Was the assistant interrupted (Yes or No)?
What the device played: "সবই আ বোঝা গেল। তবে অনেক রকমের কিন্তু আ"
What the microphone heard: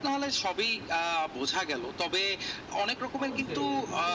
Yes